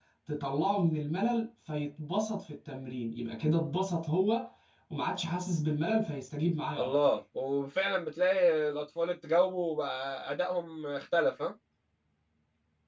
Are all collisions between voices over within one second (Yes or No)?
Yes